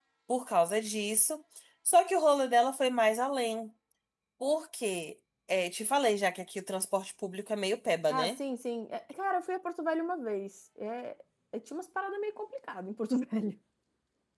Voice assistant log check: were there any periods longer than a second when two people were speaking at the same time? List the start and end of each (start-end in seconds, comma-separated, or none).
none